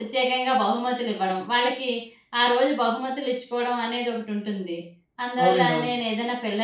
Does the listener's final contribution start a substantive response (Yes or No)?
No